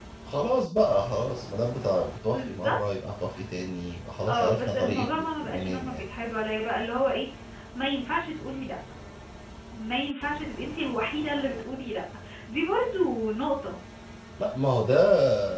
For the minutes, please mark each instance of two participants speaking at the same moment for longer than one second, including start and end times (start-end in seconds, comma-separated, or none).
4.3-6.0